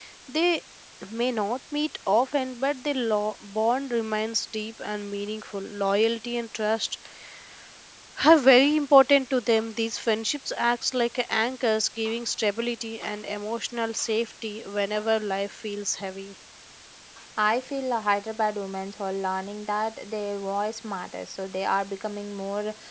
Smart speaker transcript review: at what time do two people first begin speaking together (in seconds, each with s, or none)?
none